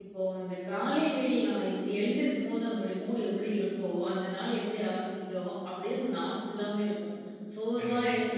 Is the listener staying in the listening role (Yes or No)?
Yes